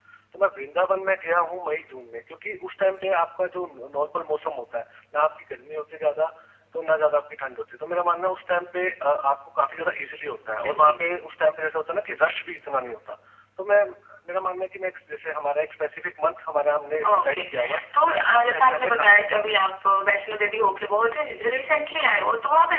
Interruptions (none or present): present